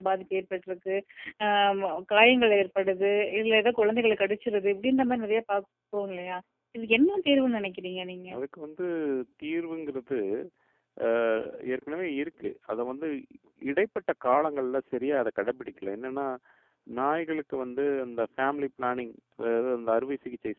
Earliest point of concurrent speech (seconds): none

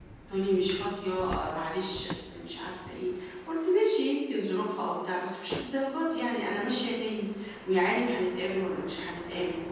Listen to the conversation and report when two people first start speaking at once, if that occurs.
none

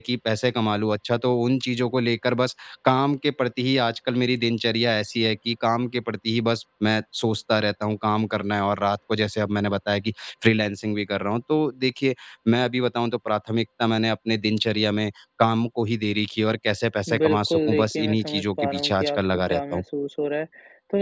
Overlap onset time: 17 s

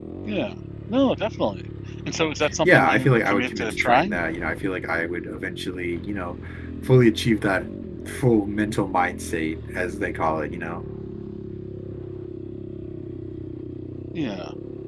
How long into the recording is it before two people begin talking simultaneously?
3 s

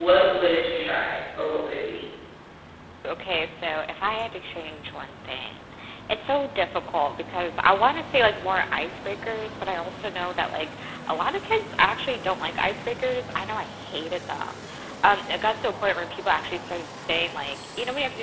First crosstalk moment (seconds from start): none

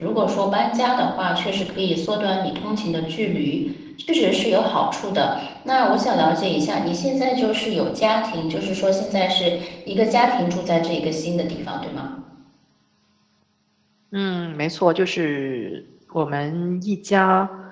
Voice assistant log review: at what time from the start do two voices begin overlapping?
none

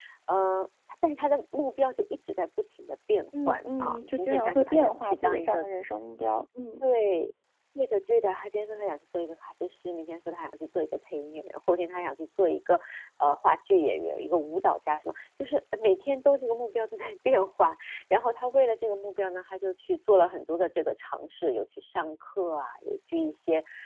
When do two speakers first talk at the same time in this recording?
3 s

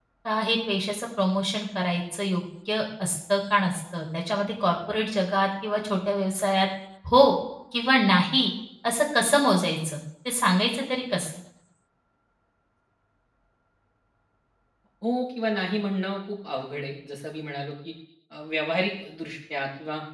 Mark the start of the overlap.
none

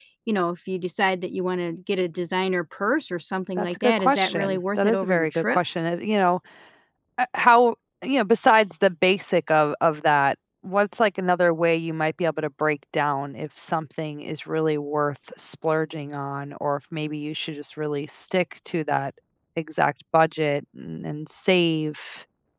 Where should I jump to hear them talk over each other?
4 s

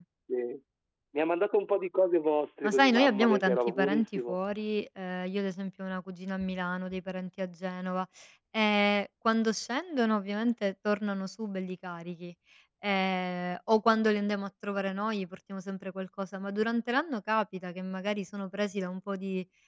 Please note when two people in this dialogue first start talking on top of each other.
3 s

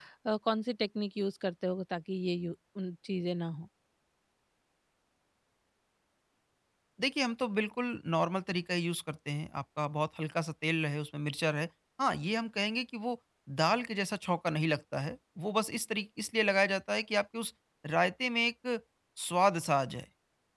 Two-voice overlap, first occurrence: none

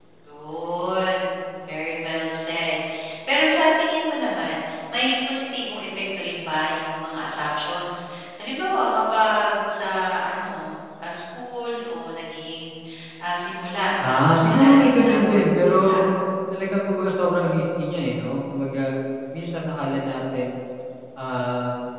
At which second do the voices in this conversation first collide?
14 s

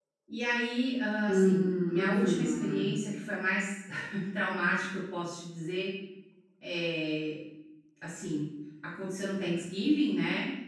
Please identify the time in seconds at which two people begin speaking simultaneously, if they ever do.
1 s

